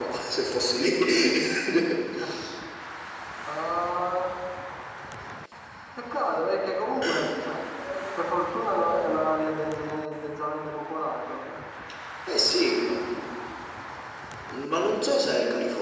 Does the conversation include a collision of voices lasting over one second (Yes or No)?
No